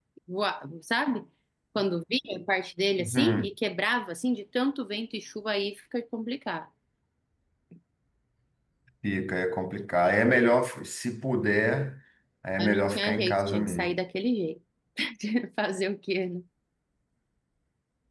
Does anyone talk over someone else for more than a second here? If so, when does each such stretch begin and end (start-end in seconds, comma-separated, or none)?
12.6-13.9